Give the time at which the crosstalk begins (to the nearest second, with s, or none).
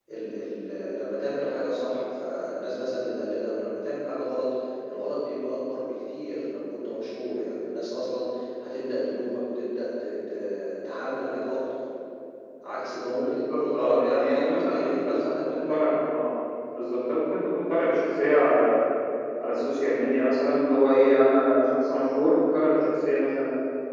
13 s